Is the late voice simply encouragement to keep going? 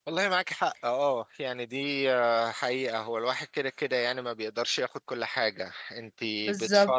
Yes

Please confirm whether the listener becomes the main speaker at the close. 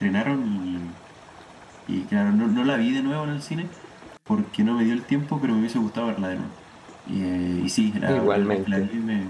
No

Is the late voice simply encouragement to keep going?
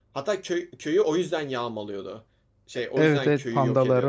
No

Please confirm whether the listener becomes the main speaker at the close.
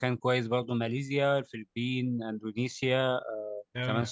No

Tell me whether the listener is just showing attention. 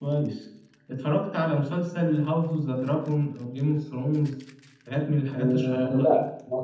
No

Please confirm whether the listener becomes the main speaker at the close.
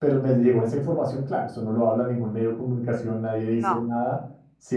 No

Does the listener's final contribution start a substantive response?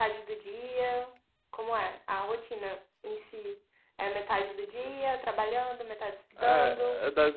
Yes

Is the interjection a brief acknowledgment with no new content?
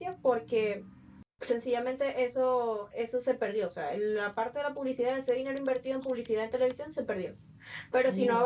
Yes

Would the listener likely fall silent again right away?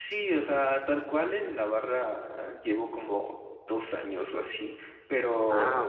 Yes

